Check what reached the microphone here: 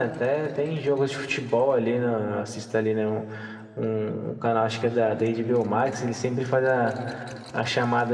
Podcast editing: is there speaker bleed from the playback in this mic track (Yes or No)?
Yes